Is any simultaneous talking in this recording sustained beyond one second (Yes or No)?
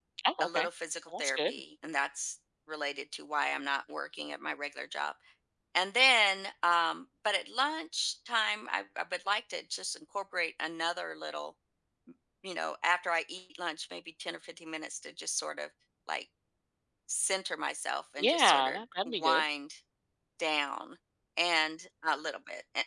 Yes